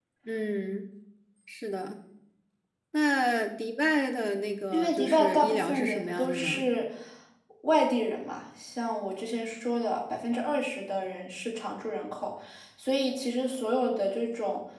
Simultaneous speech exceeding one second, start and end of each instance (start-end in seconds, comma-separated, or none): 4.7-6.7